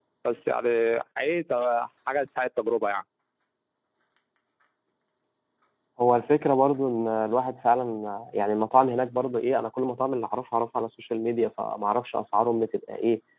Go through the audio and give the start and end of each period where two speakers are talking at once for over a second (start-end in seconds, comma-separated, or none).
none